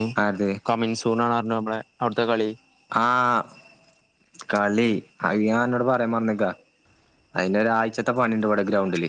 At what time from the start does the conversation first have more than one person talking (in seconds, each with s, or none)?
none